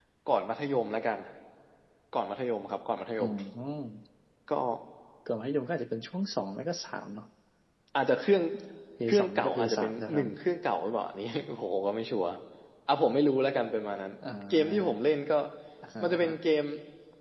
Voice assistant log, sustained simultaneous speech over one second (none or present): present